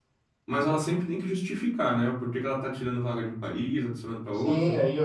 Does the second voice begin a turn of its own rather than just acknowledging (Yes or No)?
Yes